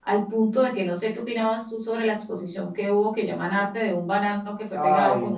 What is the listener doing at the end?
taking over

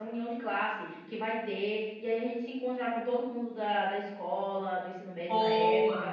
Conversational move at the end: listening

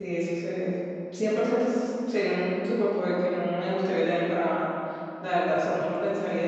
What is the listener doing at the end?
listening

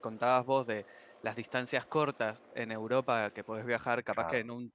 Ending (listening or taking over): listening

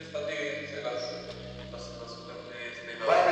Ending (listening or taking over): taking over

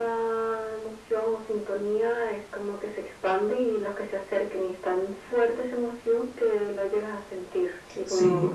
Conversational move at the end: taking over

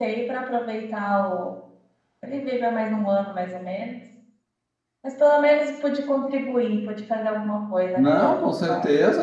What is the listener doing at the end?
taking over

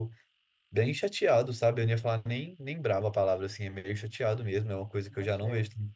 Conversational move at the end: listening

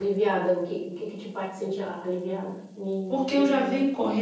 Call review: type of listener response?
taking over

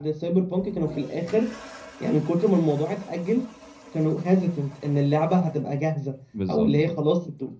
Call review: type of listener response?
listening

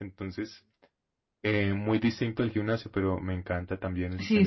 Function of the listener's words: taking over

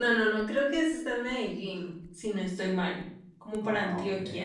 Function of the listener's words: listening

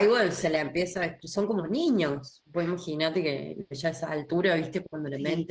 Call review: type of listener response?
listening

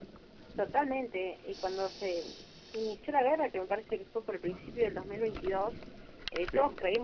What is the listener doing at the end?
listening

